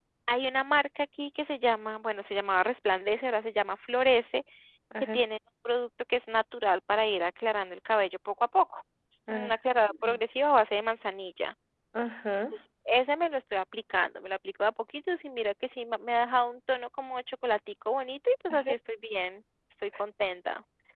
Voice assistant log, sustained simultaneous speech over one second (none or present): none